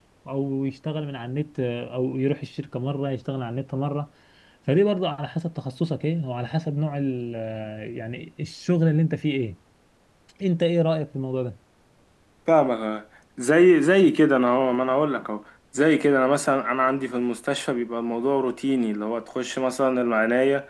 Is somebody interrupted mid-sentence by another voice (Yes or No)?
No